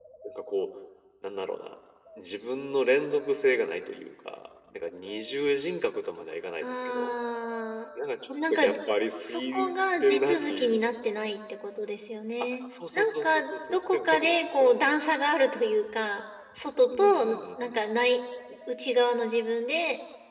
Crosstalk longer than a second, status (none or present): present